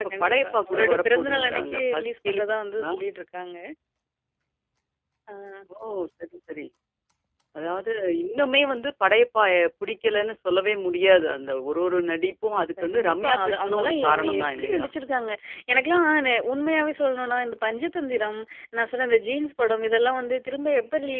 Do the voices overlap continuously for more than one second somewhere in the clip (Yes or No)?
Yes